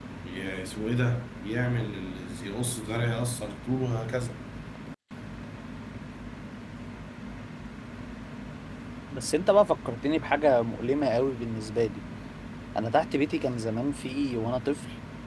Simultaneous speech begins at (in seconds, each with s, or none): none